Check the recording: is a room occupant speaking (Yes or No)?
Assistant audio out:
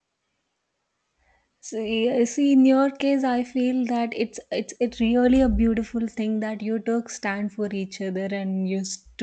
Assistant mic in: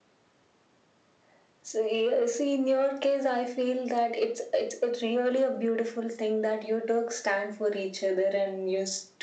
No